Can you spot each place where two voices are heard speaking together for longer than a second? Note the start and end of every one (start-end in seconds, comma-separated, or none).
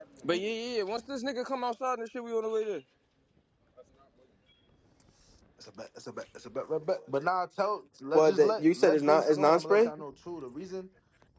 8.1-9.9